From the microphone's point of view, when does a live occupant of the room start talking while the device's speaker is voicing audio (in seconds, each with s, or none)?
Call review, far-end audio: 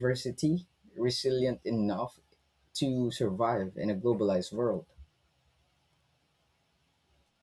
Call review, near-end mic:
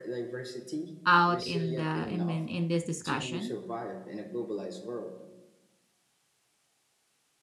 1.1 s